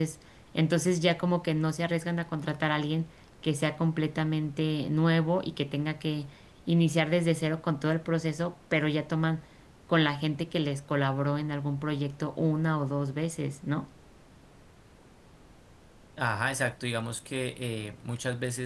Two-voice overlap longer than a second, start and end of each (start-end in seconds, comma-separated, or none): none